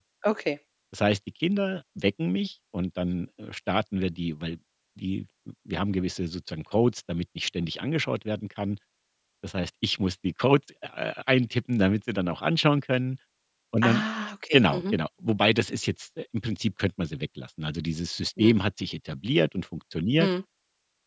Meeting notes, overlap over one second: none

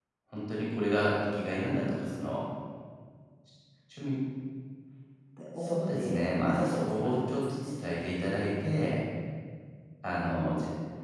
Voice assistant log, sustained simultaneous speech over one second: present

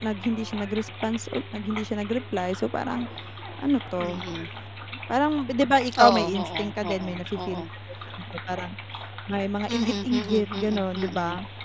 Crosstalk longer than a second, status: present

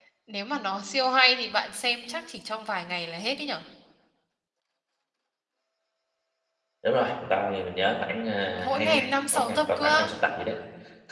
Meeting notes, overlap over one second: present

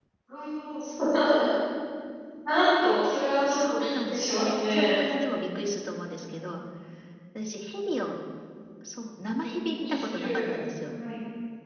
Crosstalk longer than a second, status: present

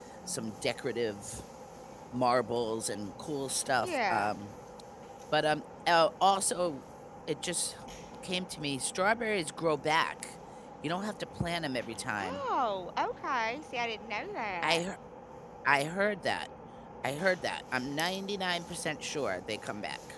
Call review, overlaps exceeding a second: none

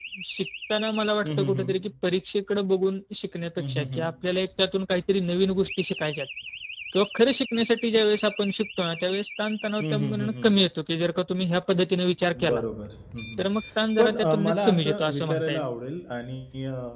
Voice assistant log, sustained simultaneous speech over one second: present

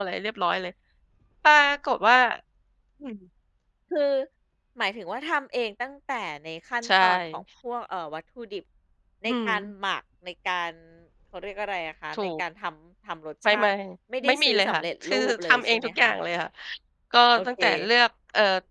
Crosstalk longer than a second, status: present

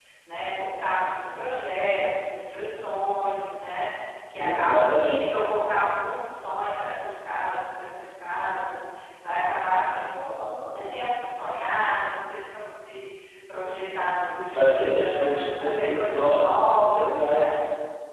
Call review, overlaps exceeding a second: present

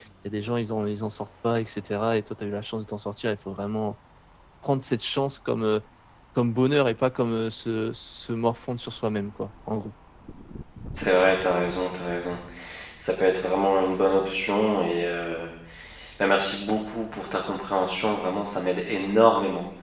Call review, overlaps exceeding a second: none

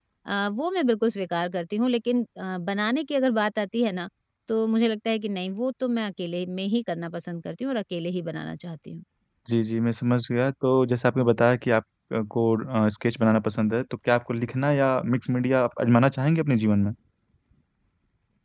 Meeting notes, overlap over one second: none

